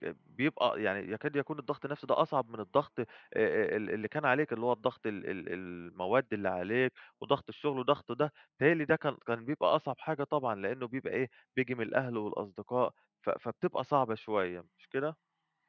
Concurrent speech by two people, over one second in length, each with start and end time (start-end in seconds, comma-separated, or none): none